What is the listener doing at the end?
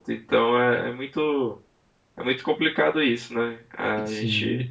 listening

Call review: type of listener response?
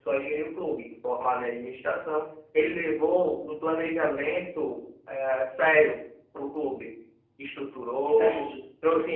listening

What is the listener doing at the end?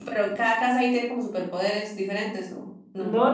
taking over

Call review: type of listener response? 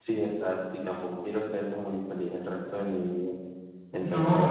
taking over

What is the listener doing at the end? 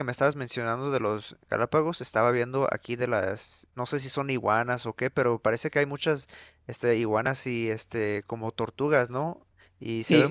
taking over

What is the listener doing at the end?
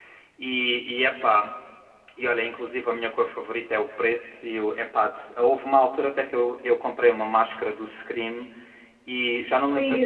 listening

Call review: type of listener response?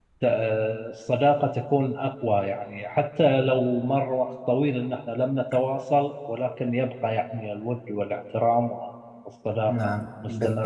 taking over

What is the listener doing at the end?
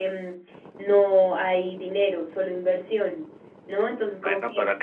taking over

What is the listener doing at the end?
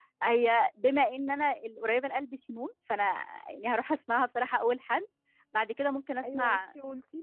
taking over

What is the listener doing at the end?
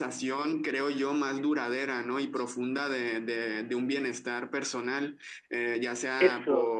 listening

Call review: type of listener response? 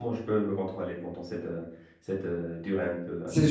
taking over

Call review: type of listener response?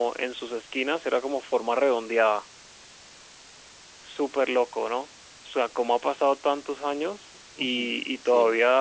listening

